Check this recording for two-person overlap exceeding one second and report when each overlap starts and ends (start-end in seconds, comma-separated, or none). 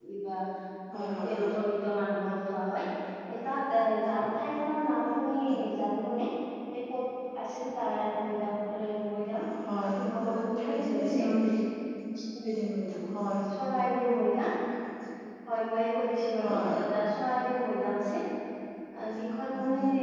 9.8-11.2